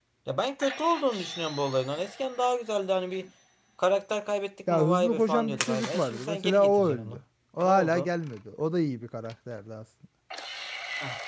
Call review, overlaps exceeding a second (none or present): present